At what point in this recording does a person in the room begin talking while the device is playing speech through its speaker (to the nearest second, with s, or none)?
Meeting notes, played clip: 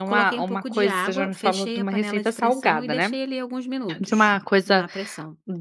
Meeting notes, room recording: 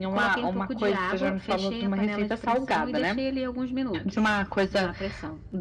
none